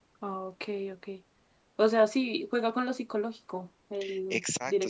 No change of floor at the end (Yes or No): No